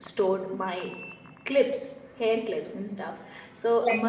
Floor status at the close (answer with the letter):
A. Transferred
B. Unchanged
B